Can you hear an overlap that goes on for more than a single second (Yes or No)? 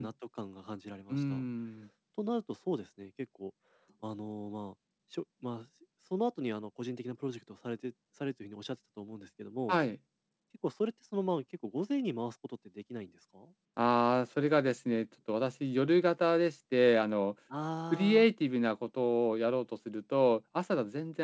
No